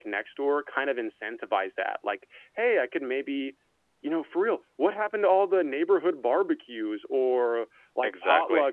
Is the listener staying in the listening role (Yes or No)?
Yes